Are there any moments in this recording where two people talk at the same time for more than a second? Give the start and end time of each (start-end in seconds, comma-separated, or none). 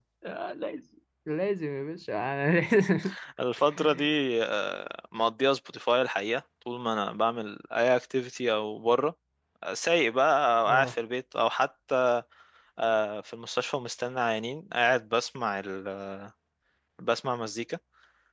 none